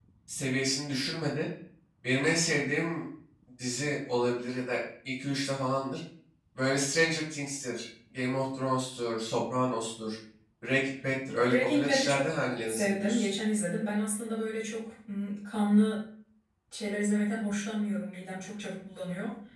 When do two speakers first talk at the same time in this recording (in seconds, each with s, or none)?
11.5 s